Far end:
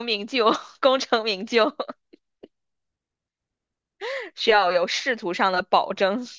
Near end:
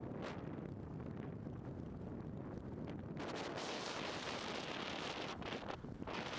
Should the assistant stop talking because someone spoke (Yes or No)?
No